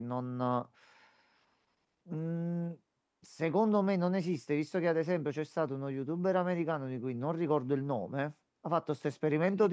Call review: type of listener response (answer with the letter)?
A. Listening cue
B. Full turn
A